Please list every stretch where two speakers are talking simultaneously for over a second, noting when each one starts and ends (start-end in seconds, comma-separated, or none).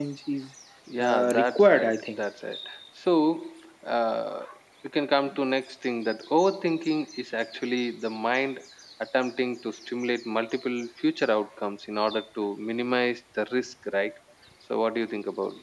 1.0-2.2